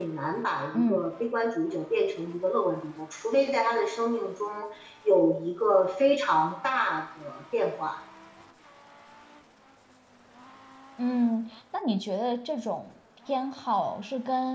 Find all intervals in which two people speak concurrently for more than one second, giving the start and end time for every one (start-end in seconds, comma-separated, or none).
none